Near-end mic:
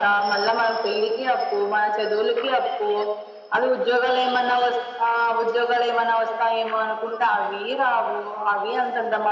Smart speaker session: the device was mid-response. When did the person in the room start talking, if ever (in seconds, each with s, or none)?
none